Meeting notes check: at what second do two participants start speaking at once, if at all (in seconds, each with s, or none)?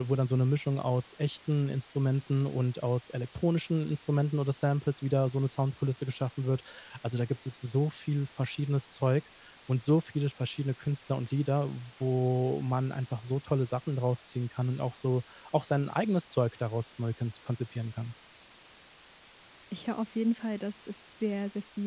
none